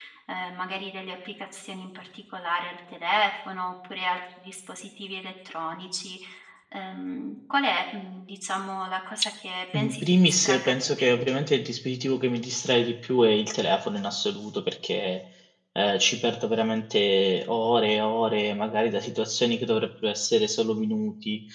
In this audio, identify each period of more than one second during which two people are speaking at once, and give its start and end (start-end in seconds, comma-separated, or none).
9.7-11.2